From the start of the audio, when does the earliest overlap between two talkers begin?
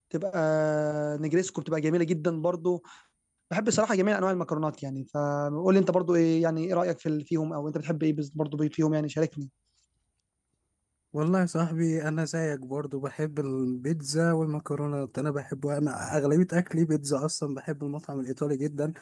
none

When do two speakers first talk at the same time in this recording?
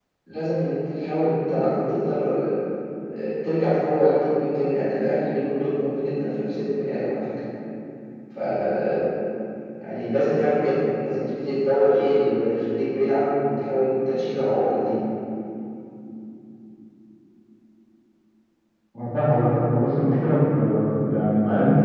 none

